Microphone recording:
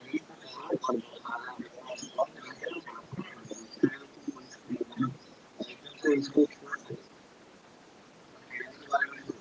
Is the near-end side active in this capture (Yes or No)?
No